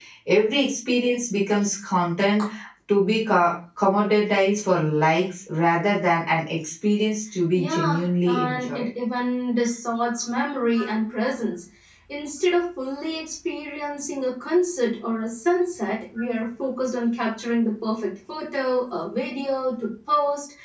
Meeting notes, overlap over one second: present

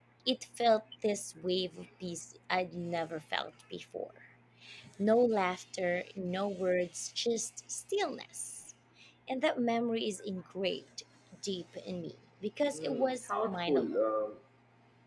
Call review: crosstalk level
present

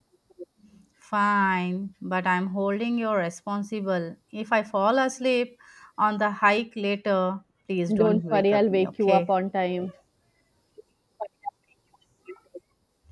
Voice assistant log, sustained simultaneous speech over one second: present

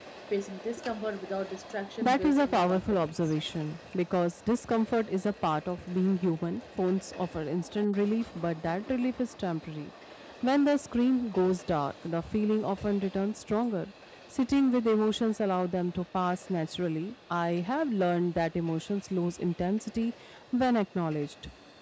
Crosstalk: present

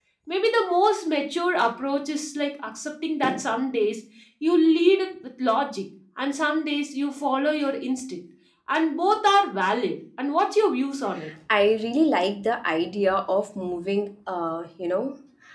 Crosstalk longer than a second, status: none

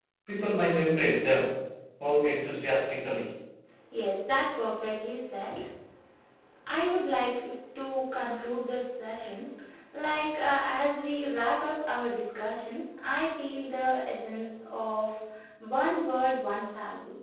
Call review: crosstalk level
none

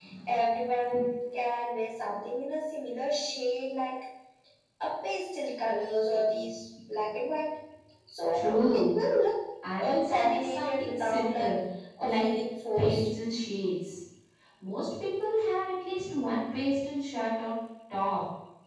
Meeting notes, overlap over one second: present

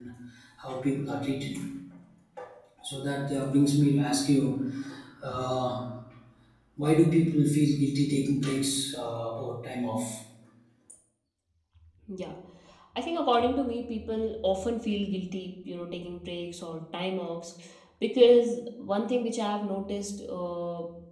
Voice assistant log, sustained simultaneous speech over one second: none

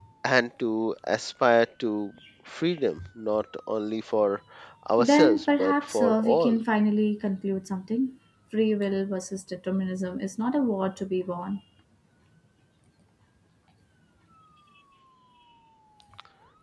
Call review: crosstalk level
present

